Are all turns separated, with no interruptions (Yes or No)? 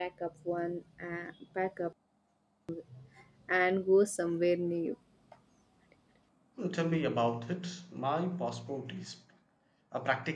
Yes